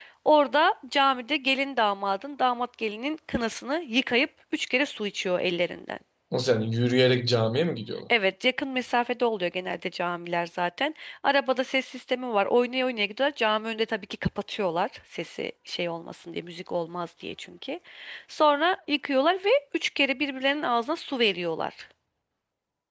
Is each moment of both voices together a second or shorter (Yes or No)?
Yes